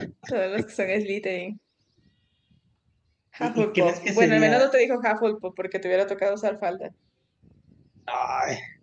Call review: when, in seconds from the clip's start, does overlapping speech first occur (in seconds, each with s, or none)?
3.4 s